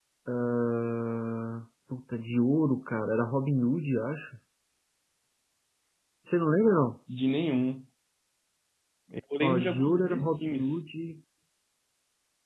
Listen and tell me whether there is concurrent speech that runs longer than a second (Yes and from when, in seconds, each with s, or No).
Yes, from 9.4 s